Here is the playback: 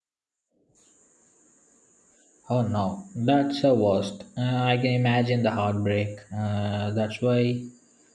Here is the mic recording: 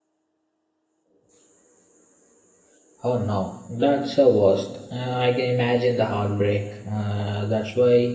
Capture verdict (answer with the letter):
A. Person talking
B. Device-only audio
B